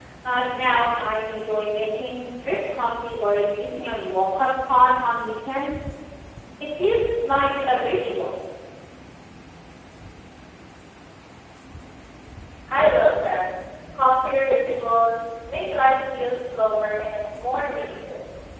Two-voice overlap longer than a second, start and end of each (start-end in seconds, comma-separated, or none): none